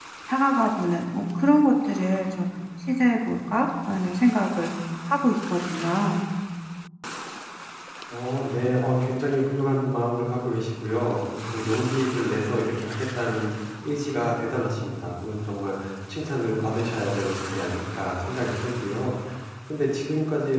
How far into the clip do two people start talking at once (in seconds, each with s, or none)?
none